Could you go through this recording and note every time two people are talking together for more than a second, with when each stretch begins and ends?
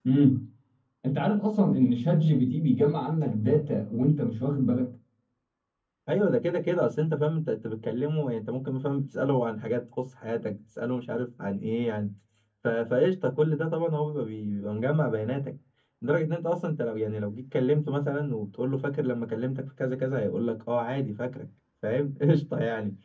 none

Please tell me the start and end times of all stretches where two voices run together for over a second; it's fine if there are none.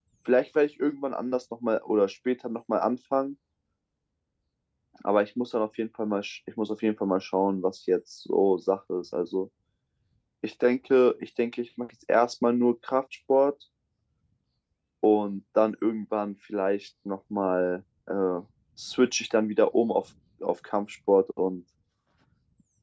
none

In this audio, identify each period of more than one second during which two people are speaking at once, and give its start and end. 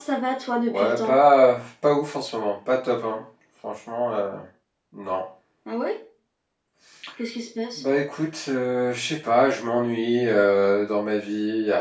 none

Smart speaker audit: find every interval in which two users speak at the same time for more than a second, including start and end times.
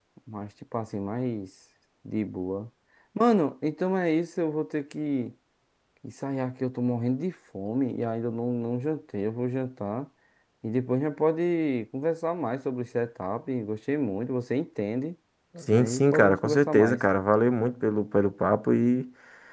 15.7-17.0

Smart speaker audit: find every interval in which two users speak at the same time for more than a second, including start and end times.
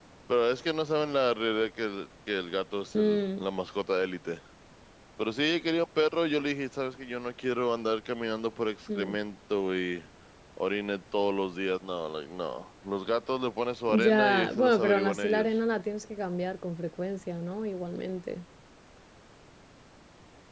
13.9-15.5

